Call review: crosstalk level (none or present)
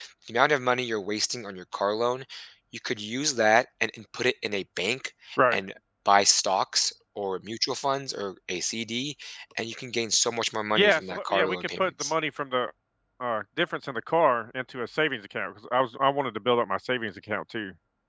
present